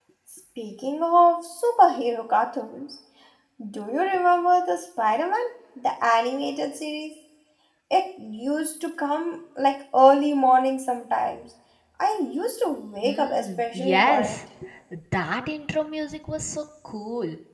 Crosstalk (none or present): present